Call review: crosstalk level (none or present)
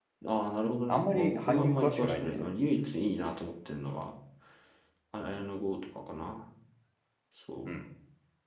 present